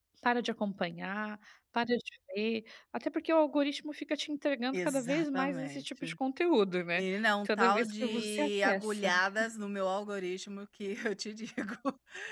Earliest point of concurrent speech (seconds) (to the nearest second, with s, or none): 5 s